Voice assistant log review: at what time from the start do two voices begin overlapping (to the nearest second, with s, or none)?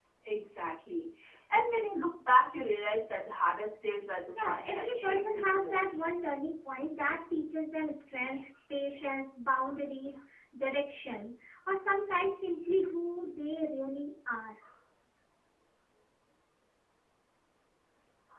4 s